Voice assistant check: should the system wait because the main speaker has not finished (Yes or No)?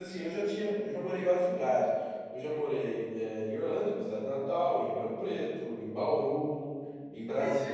Yes